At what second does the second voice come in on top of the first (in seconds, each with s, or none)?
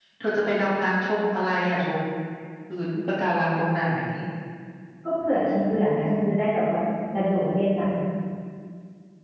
none